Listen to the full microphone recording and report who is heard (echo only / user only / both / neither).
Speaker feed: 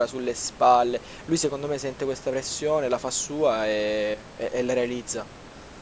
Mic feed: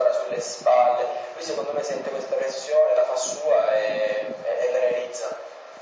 echo only